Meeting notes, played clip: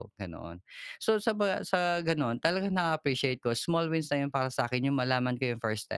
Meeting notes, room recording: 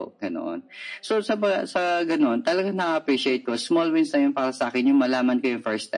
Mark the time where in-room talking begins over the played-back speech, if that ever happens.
none

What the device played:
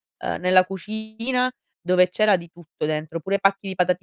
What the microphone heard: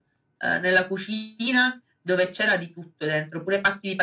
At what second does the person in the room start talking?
none

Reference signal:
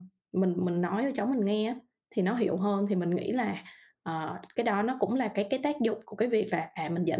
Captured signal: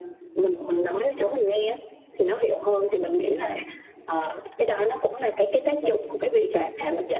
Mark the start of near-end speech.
none

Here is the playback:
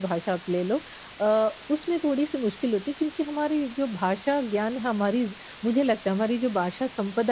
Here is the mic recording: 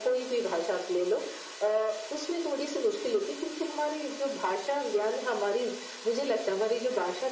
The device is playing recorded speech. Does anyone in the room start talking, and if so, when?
none

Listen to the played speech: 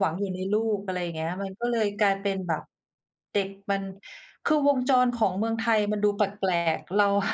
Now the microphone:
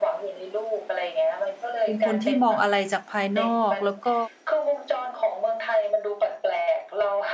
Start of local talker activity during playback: 1.8 s

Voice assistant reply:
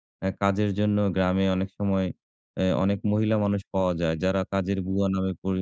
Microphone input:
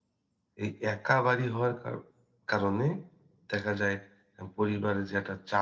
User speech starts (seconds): 0.6 s

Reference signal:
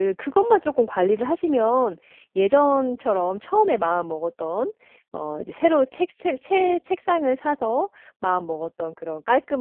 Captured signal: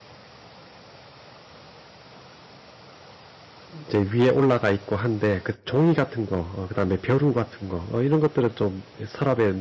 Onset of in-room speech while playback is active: 3.7 s

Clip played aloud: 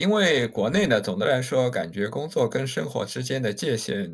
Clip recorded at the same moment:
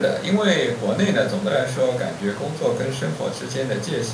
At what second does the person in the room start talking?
none

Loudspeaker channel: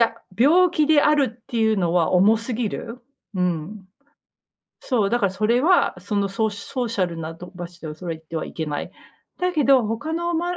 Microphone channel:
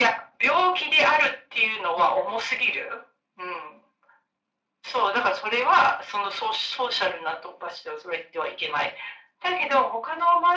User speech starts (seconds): none

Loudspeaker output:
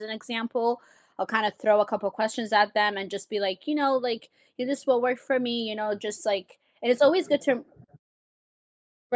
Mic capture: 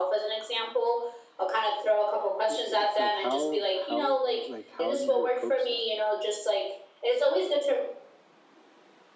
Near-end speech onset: 2.5 s

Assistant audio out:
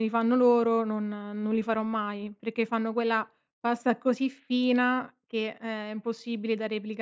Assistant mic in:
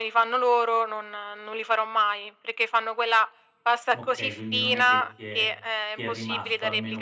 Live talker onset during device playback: 3.9 s

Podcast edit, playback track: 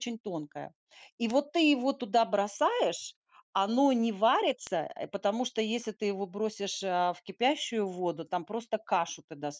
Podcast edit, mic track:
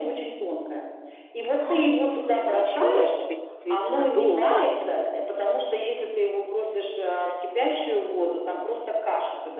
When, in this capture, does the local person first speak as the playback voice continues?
1.6 s

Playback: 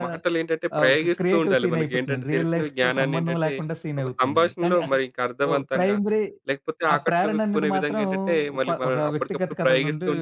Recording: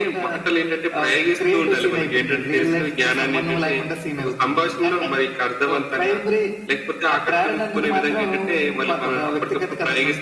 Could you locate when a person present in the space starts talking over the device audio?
none

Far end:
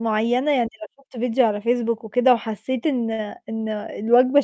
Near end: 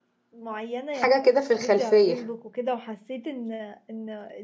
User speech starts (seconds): 0.9 s

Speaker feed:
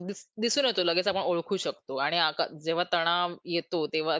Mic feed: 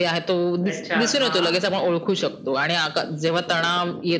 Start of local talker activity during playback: 0.7 s

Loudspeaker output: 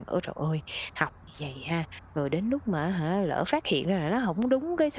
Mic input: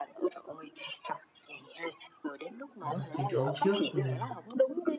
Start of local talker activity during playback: 2.8 s

